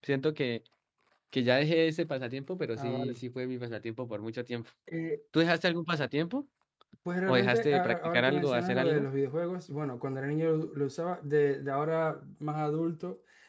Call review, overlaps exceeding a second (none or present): present